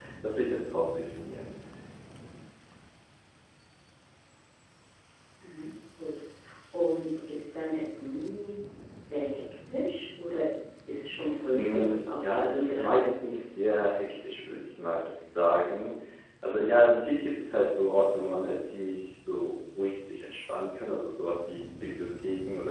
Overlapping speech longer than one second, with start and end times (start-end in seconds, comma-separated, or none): 11.5-13.4